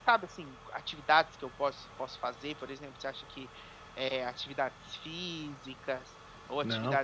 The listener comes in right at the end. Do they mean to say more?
No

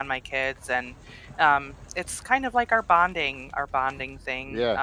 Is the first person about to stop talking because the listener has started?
No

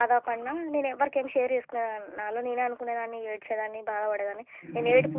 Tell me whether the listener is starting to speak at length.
No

